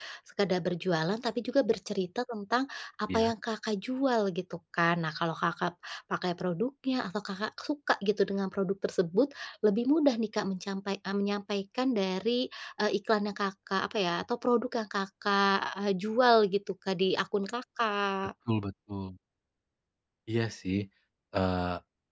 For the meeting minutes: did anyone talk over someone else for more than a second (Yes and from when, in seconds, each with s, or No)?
No